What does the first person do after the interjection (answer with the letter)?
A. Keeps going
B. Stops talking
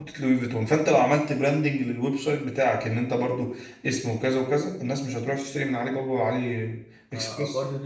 B